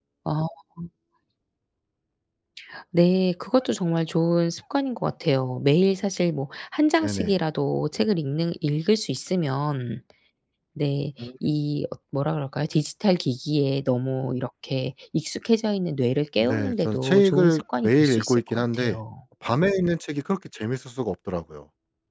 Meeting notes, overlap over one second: present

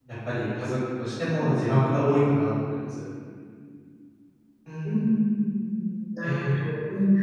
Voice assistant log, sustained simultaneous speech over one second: none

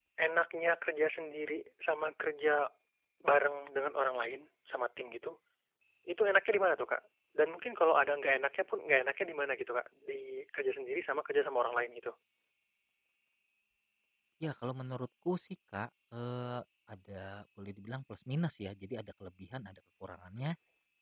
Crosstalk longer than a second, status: none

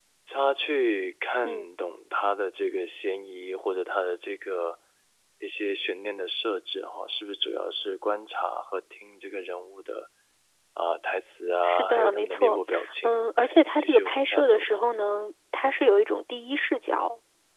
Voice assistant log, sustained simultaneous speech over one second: present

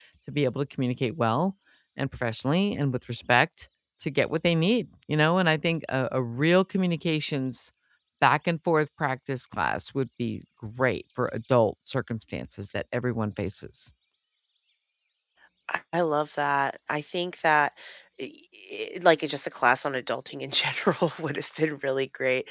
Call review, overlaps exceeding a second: none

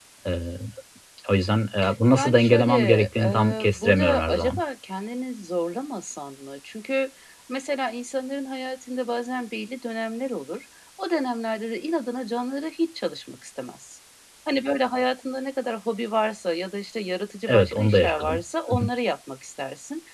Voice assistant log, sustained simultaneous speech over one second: present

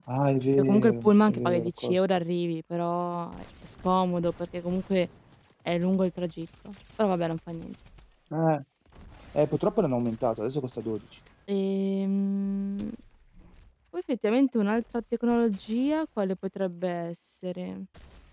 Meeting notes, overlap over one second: present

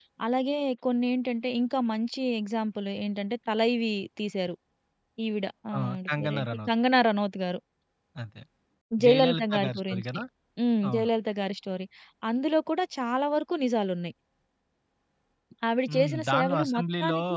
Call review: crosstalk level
present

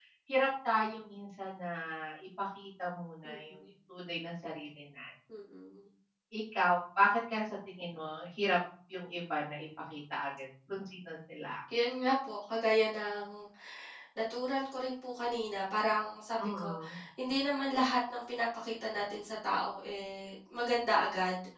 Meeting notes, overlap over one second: none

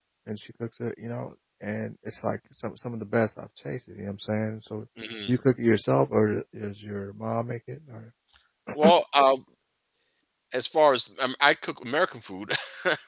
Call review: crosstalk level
none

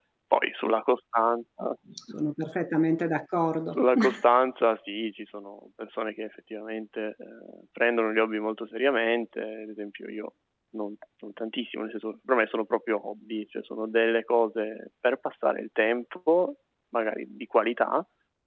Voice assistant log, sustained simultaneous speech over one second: none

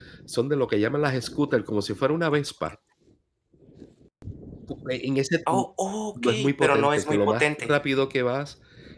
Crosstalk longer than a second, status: present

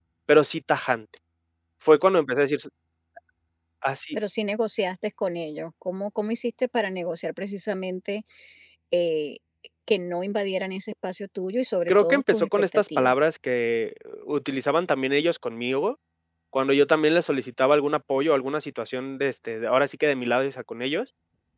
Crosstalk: present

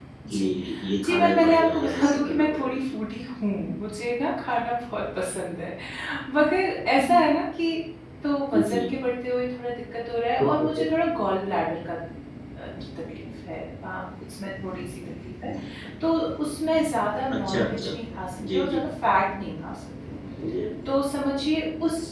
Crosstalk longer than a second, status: present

